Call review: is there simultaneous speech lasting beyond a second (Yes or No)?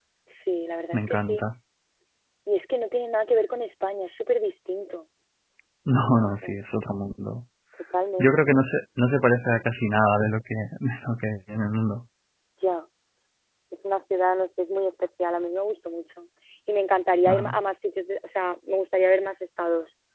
No